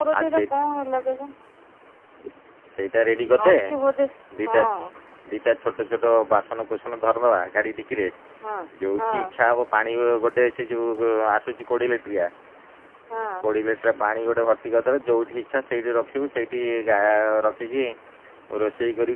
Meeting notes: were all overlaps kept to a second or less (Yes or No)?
Yes